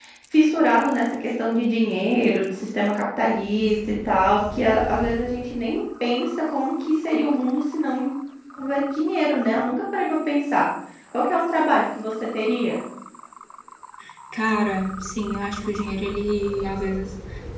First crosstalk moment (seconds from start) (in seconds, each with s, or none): none